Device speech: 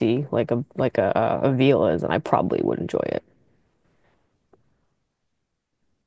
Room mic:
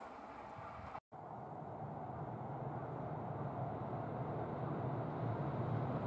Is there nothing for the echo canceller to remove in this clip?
Yes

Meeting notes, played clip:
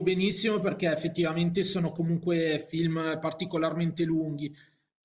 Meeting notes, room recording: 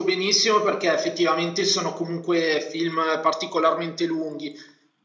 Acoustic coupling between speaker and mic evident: Yes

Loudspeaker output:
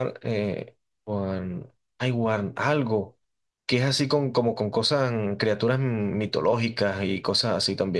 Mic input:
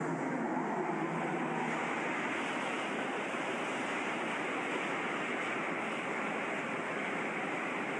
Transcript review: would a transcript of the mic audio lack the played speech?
Yes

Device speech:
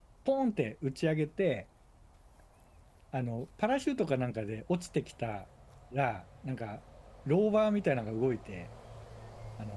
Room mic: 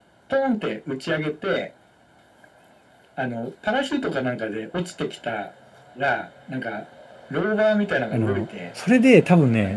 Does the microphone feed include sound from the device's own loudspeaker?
Yes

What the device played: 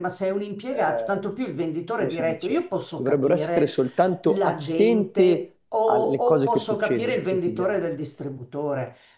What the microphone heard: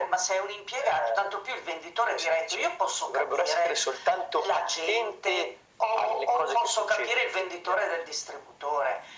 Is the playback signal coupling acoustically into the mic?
Yes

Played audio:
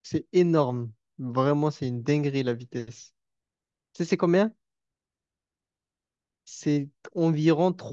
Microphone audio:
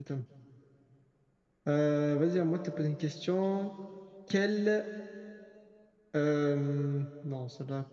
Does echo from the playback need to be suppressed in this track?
No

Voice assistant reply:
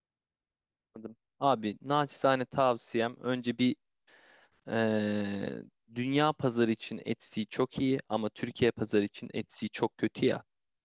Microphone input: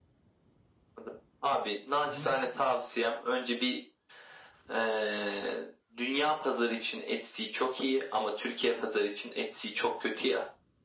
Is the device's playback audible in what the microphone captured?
Yes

